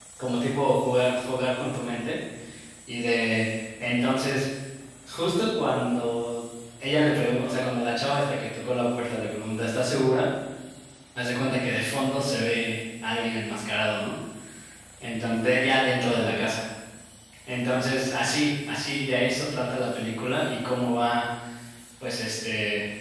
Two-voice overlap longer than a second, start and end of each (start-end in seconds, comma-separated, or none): none